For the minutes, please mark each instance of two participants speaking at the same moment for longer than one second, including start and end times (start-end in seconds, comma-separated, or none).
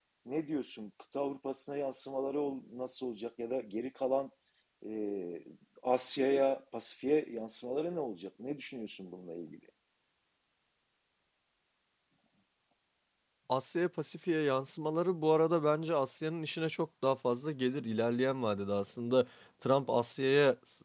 none